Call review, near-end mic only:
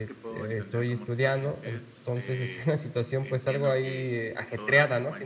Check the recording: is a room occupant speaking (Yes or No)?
Yes